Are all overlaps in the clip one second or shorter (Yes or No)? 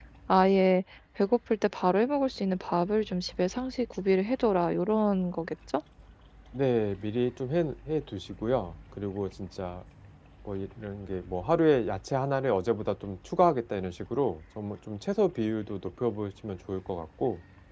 Yes